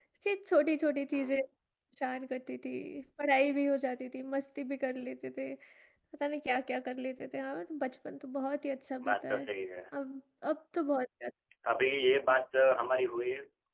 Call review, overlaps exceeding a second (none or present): none